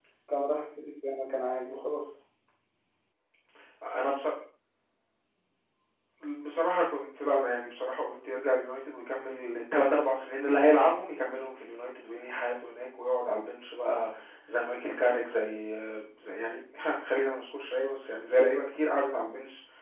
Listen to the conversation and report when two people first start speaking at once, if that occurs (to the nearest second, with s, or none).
none